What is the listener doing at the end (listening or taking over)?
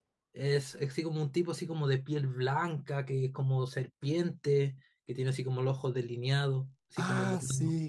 taking over